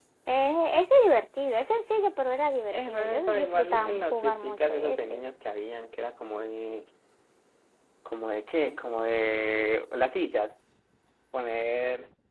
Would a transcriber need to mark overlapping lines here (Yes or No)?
Yes